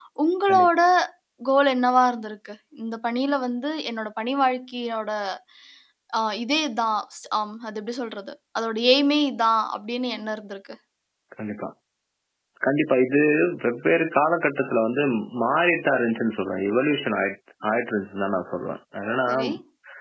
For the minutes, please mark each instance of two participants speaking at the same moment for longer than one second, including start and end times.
none

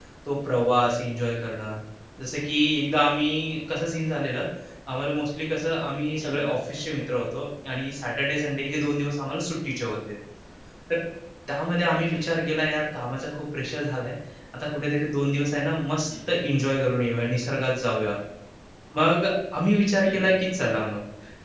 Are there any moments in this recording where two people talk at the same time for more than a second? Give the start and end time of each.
none

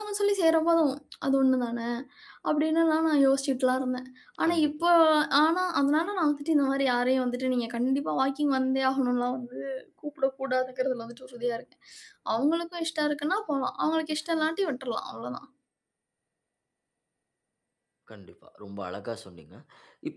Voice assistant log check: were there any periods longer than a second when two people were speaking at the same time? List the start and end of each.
none

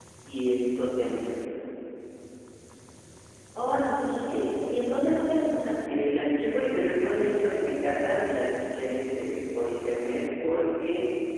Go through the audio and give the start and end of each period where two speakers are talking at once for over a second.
none

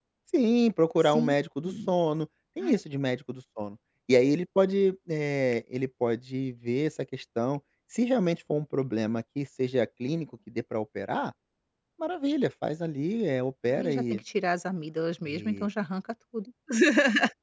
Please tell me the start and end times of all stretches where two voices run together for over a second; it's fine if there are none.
none

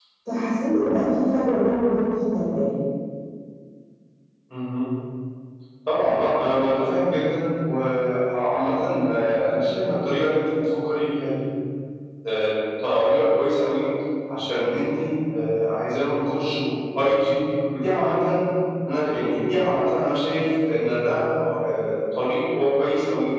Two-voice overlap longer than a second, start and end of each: none

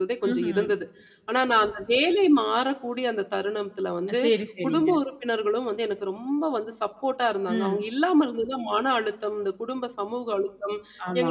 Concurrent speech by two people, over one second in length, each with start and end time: none

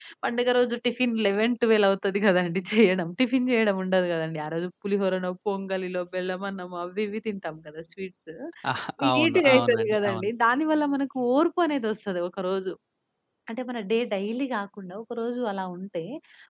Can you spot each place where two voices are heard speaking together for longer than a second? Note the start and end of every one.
9.0-10.3

